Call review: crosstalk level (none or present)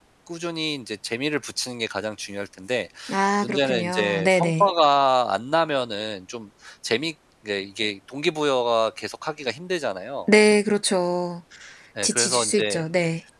present